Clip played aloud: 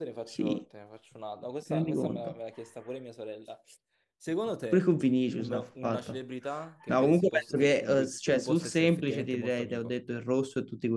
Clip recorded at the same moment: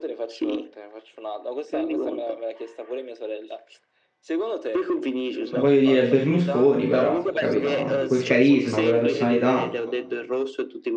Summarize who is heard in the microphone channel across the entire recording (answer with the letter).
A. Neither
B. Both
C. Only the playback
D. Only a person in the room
B